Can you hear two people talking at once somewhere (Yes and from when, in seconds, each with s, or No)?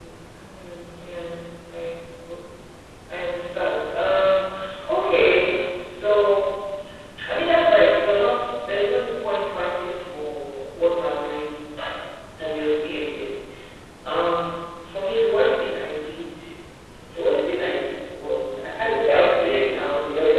Yes, from 18.7 s